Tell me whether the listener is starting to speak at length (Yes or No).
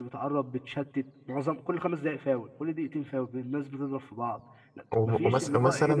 Yes